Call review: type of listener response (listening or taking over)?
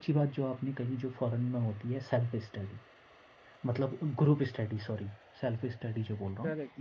taking over